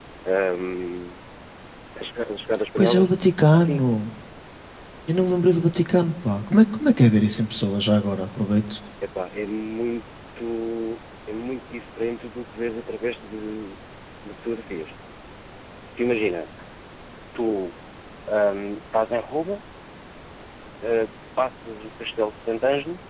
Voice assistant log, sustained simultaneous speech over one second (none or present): none